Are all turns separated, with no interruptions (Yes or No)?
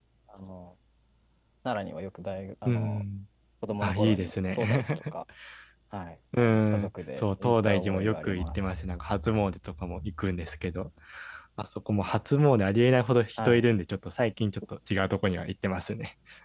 No